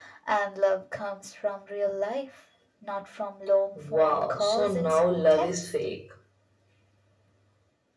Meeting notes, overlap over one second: present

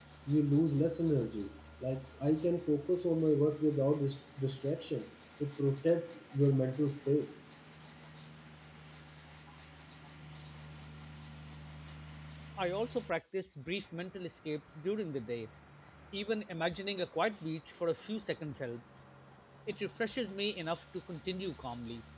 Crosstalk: none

